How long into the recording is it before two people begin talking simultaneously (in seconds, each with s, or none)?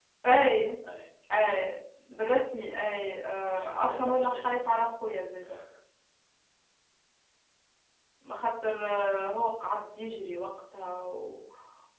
3.5 s